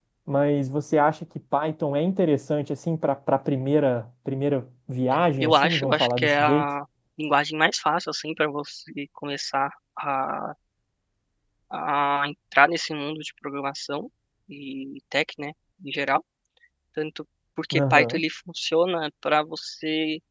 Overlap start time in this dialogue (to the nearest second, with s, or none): 5 s